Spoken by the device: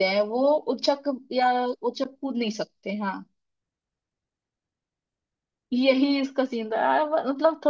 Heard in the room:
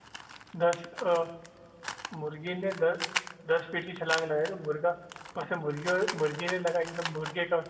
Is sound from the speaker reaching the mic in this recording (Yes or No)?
No